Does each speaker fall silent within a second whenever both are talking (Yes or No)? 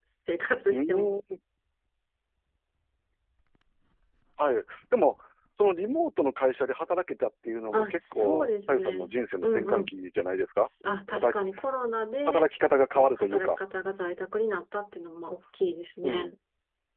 No